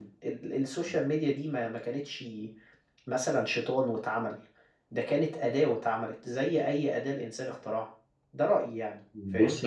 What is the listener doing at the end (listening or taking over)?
listening